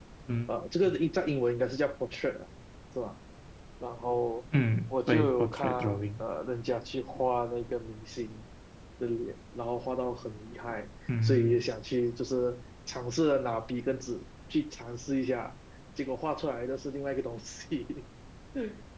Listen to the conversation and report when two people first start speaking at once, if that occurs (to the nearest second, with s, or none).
5 s